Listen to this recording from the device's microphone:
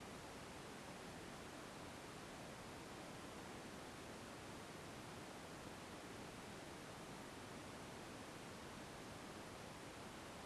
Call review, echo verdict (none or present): none